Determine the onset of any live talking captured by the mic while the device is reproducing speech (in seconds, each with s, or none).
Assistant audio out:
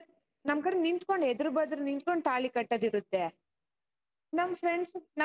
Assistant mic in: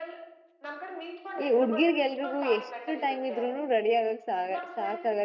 1.4 s